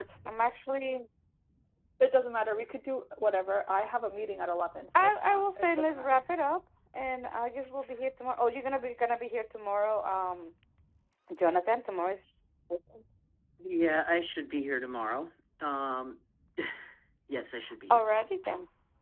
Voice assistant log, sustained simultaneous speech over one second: present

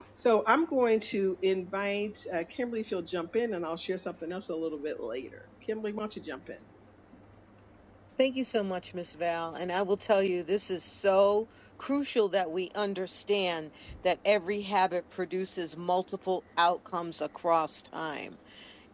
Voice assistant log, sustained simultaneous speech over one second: none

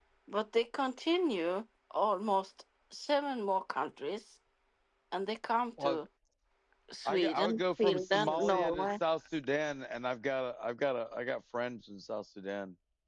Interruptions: present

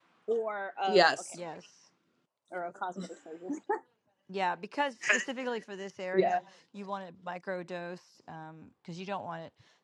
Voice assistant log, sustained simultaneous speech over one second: none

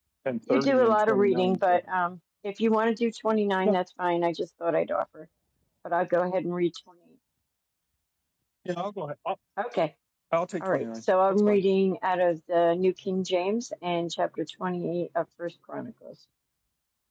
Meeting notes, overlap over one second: present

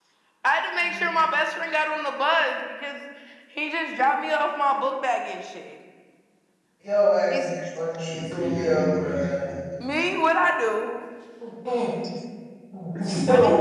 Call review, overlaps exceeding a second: present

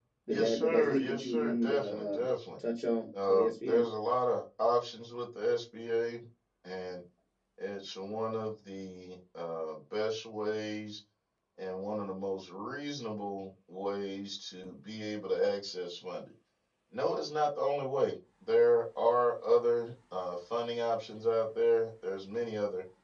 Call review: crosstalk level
present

